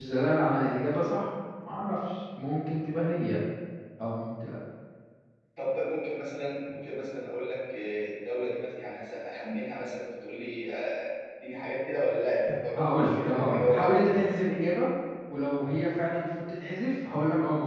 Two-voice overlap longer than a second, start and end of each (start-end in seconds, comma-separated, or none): 12.8-14.2